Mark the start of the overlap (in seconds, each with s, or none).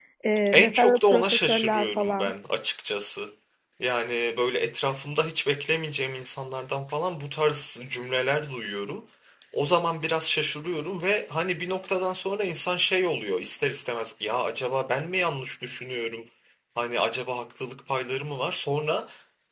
0.5 s